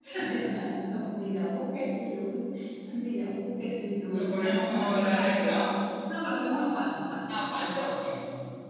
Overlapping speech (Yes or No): Yes